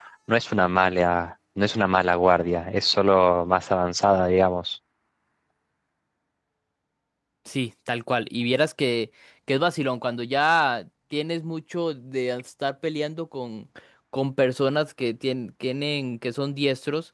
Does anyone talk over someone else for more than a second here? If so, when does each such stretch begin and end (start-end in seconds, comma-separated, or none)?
none